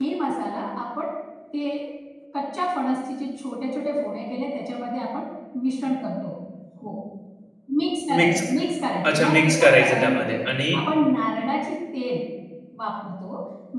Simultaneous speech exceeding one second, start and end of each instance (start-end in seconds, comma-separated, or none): 9.1-10.4